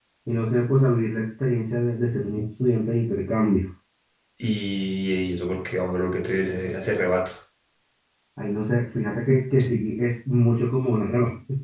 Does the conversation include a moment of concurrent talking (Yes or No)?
No